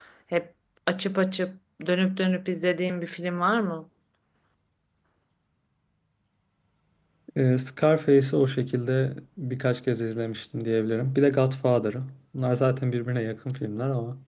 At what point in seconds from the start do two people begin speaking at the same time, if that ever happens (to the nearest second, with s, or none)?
none